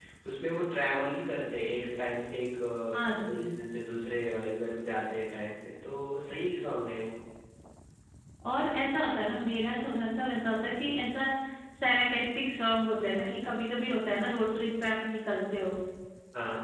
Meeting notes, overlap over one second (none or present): none